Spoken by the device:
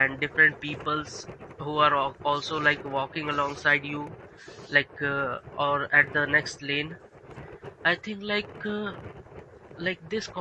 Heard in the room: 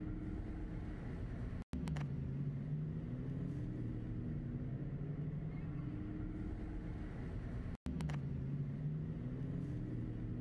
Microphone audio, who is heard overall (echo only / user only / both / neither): neither